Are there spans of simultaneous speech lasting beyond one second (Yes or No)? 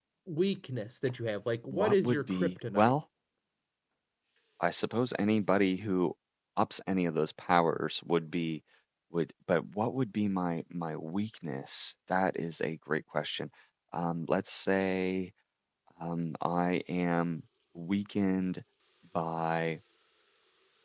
Yes